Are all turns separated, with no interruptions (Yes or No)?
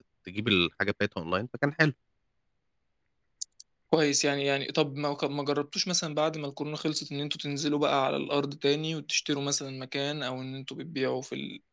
Yes